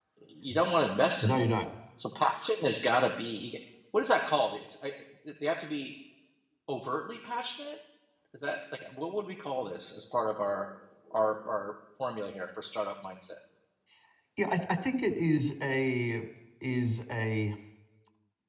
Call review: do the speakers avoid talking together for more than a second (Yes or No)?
Yes